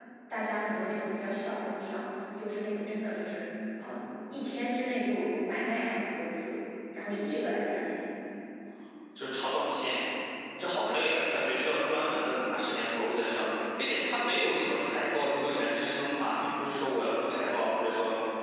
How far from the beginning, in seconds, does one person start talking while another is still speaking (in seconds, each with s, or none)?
none